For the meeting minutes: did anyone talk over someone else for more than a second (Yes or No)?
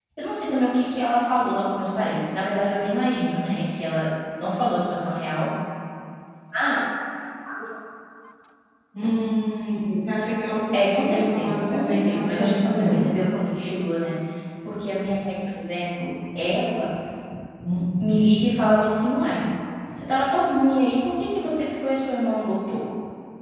Yes